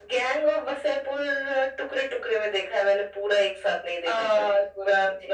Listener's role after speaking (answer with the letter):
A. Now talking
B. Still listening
A